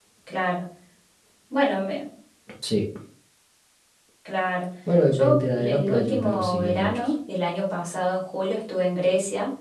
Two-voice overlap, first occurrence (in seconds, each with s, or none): 5.1 s